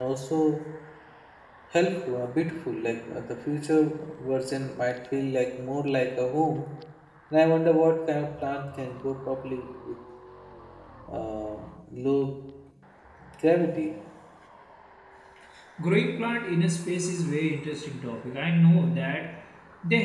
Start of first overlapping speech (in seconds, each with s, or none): none